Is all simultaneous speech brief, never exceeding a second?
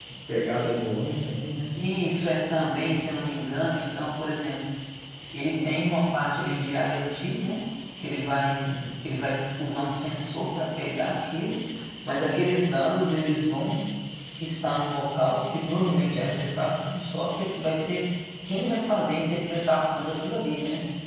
Yes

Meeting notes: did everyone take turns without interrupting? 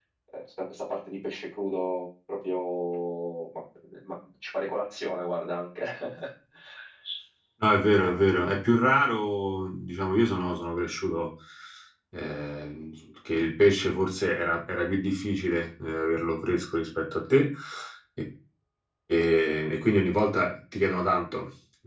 Yes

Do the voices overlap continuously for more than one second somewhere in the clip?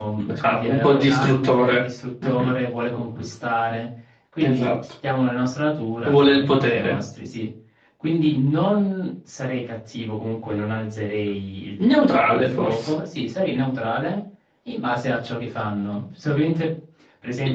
Yes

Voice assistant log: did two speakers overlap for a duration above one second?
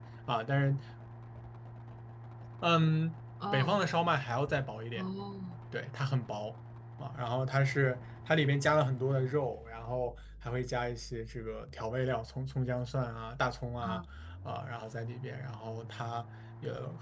No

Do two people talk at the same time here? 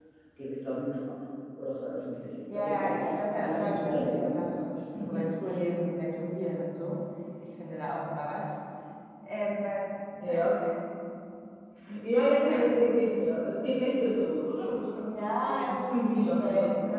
Yes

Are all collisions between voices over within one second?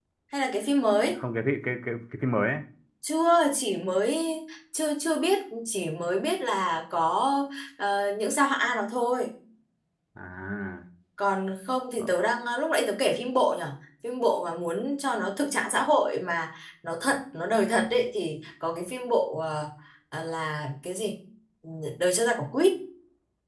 Yes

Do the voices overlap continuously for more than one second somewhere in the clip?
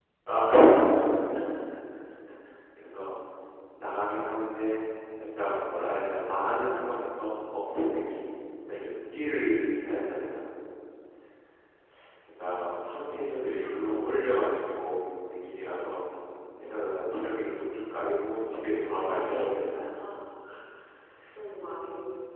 Yes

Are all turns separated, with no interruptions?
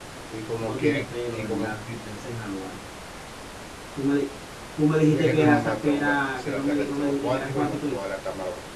No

